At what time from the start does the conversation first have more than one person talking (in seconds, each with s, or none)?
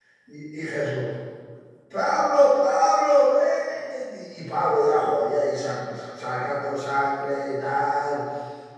none